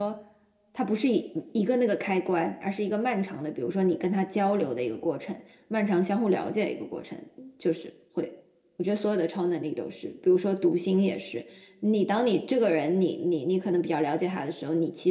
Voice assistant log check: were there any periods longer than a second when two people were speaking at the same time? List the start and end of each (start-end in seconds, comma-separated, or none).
none